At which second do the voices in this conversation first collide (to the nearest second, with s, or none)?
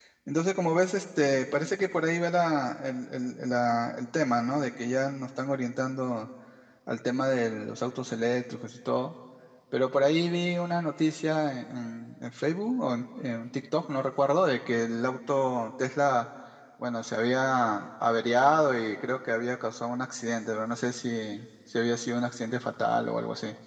none